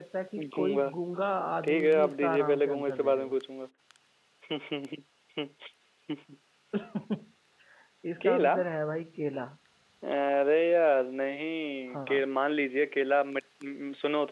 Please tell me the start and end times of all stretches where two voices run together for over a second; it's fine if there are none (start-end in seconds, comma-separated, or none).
1.6-3.4